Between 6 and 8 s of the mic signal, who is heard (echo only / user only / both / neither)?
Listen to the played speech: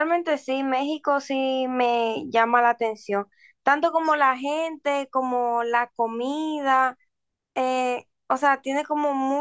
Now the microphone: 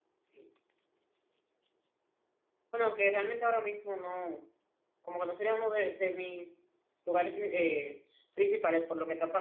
user only